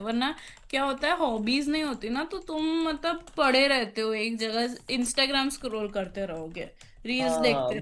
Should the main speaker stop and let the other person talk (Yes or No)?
Yes